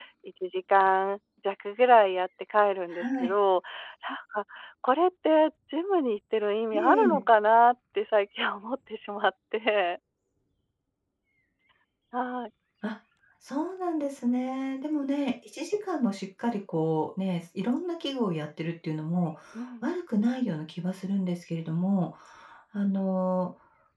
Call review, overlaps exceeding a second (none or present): none